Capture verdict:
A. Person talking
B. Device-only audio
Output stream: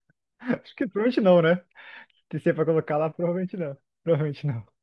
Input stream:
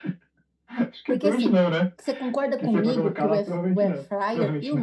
A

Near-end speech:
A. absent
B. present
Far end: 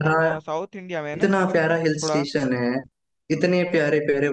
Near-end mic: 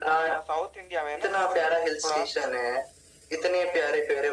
A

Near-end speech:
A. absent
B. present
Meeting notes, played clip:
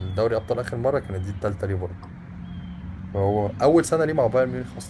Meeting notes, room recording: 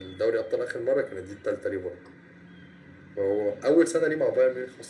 A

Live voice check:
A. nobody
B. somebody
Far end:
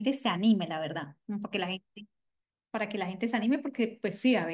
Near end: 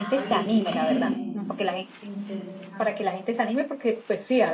B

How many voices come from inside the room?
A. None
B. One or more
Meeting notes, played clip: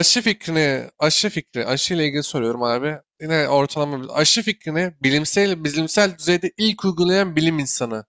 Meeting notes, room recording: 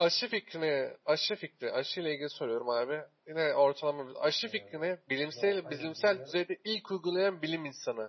B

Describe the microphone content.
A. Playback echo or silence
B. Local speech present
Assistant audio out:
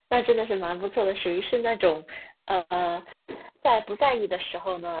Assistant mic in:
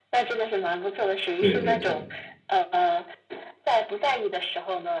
B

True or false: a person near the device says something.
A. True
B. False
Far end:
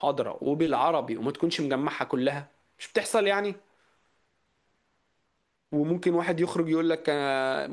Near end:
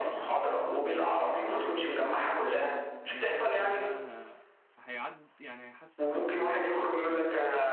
A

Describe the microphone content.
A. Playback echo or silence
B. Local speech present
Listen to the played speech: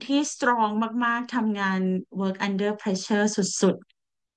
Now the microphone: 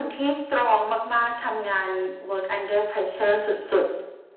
A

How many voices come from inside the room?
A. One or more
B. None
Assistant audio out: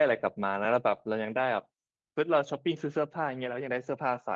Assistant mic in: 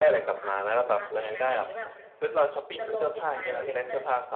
A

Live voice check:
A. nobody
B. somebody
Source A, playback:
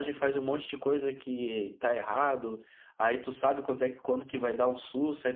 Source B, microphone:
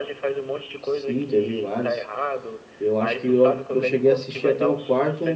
B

